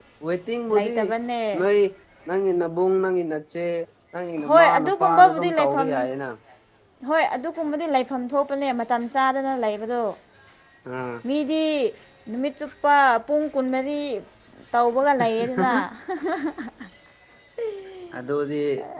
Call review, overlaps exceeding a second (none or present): present